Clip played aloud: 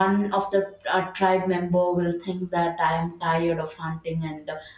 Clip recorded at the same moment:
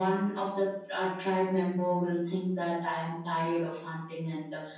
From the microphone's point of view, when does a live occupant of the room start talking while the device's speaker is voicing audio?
none

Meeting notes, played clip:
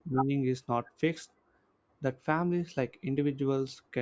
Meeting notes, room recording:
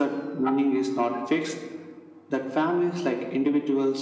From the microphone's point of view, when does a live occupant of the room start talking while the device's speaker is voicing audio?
none

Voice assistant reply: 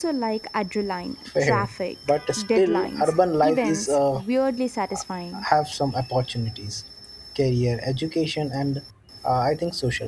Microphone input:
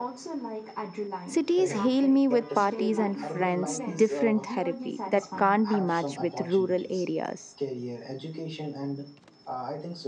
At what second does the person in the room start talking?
1.3 s

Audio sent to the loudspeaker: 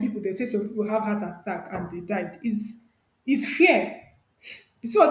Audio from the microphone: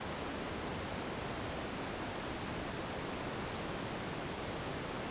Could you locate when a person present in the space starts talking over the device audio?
none

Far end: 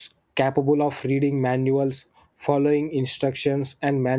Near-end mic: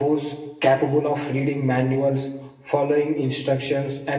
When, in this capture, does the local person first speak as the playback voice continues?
none

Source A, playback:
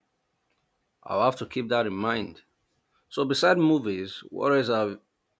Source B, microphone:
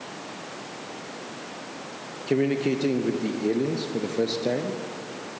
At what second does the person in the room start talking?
2.3 s

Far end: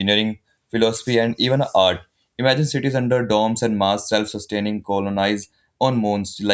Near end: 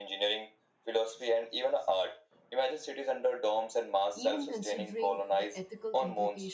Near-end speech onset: 4.1 s

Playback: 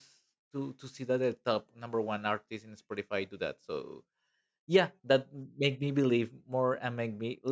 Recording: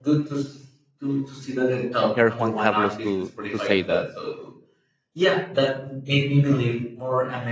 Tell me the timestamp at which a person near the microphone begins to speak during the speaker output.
2.1 s

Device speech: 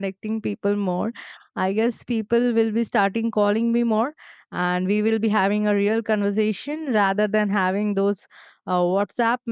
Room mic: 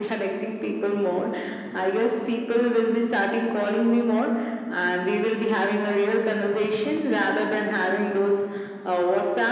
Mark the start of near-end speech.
none

